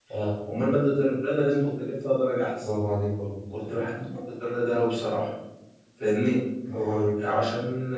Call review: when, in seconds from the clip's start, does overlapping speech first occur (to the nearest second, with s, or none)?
none